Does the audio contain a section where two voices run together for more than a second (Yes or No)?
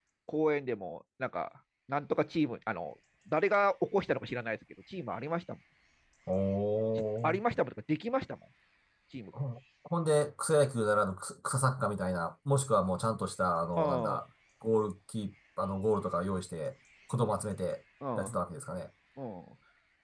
No